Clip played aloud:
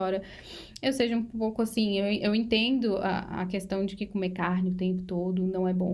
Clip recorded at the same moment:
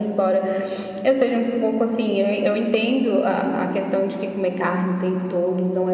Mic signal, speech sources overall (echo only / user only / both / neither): echo only